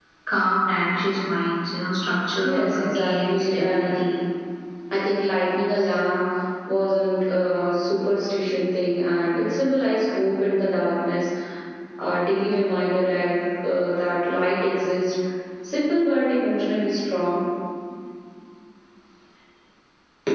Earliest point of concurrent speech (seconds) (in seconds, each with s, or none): 2.4 s